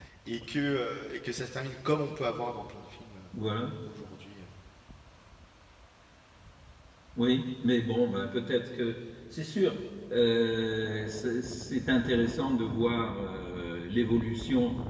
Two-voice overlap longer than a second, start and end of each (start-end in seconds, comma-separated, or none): none